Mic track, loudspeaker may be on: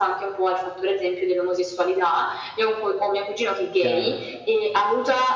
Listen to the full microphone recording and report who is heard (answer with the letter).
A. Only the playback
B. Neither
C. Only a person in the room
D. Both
D